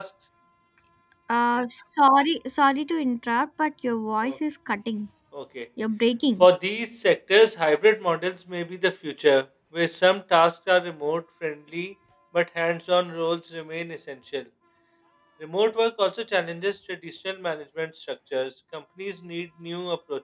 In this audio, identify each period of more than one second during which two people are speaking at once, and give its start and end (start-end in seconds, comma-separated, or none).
none